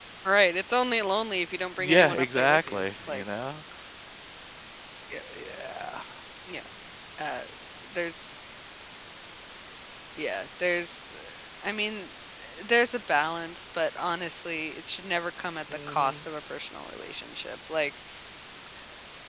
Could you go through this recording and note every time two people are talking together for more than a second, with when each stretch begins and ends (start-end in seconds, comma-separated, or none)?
1.8-3.2